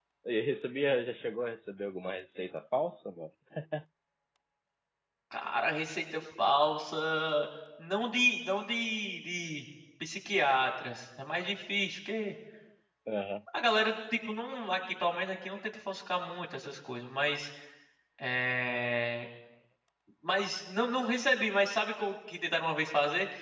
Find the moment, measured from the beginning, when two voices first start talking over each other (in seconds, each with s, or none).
none